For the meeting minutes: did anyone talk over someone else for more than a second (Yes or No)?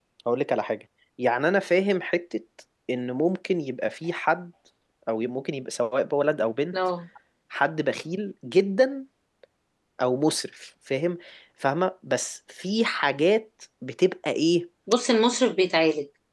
No